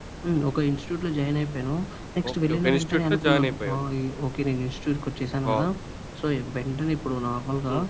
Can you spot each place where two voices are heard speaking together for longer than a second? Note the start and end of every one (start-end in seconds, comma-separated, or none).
2.3-3.8